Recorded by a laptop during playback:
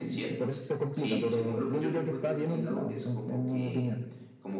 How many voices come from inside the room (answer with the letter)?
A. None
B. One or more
B